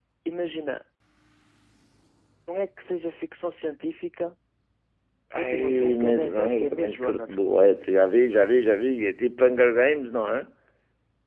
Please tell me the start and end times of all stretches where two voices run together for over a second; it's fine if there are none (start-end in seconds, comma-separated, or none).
5.4-7.4